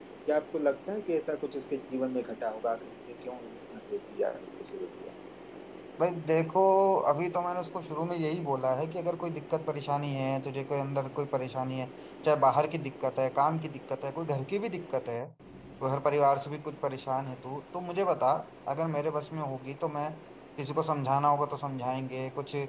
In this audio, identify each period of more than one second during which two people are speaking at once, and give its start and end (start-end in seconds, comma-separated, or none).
none